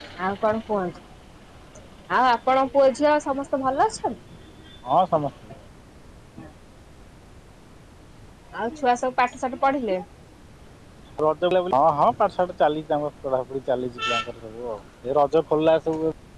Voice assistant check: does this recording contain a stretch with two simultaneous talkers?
No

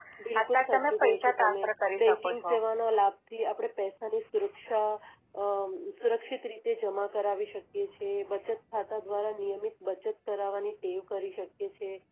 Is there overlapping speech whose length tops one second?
Yes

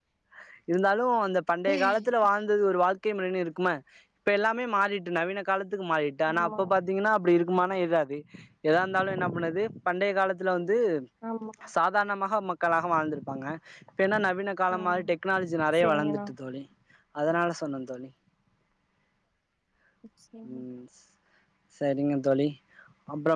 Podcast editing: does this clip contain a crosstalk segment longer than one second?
No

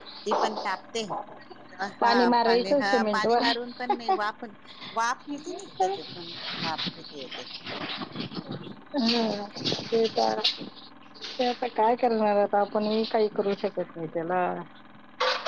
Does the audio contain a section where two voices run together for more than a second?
Yes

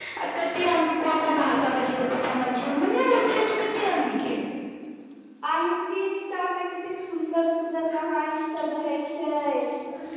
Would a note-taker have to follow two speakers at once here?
No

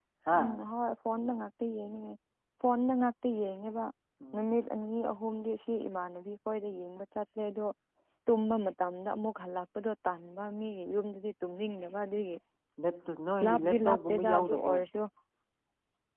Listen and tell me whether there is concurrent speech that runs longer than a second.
Yes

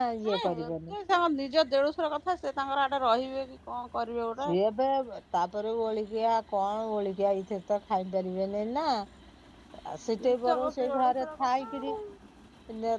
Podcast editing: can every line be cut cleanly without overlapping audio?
No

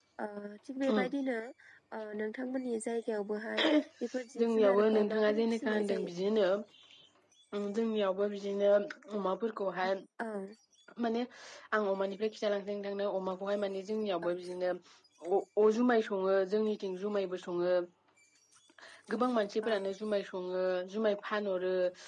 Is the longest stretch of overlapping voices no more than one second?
No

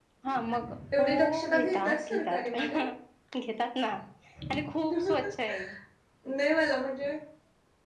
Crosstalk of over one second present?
Yes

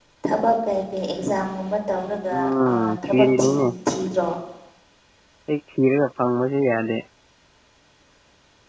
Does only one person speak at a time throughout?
No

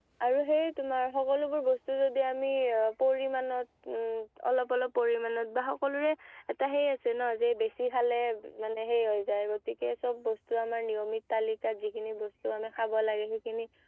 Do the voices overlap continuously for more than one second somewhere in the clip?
No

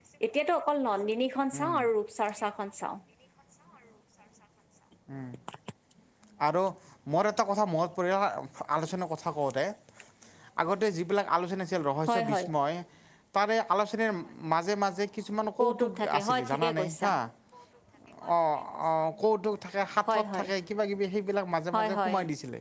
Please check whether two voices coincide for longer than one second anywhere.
Yes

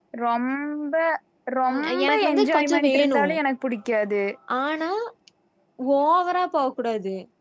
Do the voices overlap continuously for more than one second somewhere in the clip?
Yes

